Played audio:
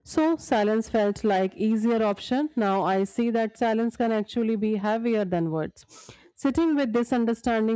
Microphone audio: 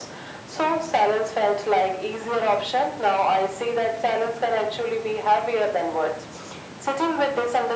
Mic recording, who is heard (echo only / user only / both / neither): echo only